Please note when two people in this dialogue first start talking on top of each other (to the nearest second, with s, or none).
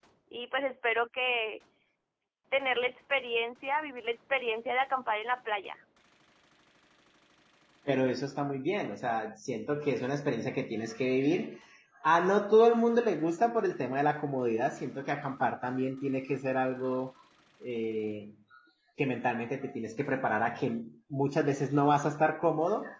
none